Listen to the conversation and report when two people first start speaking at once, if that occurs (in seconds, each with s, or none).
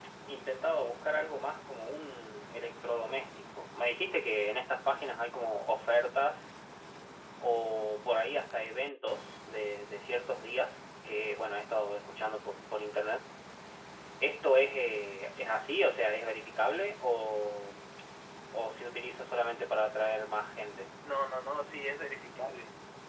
none